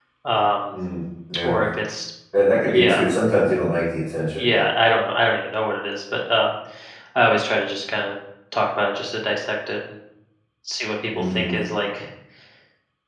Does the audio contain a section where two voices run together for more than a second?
No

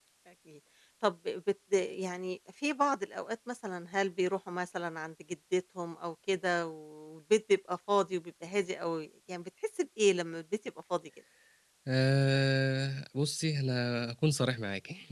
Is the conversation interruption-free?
Yes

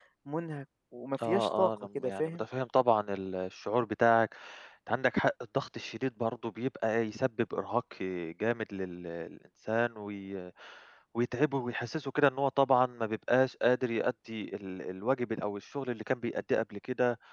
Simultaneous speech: Yes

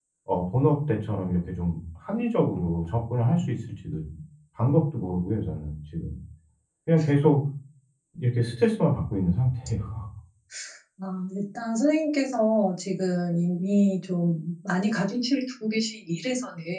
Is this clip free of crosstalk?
Yes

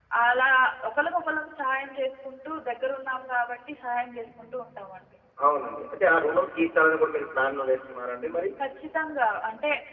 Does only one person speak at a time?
Yes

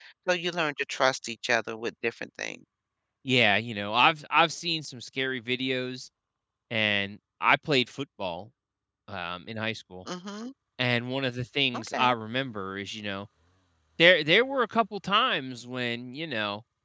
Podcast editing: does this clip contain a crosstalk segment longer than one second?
No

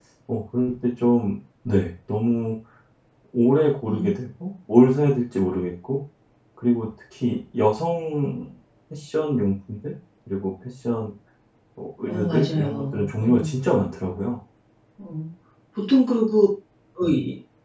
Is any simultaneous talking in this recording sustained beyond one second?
Yes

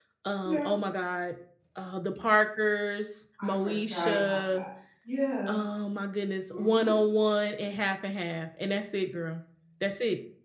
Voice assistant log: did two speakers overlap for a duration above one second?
Yes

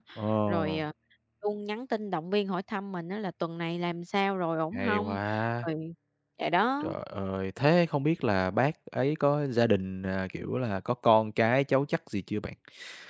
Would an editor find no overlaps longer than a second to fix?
Yes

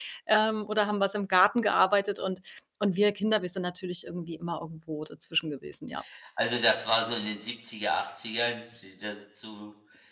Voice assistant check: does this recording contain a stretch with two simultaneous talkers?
No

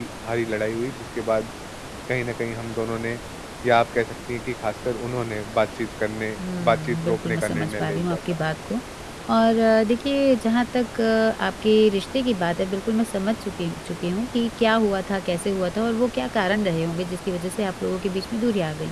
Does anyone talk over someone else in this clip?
Yes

